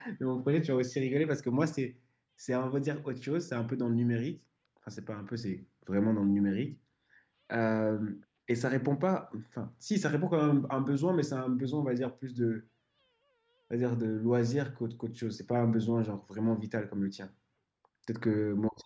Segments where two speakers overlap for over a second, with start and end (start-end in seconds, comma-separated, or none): none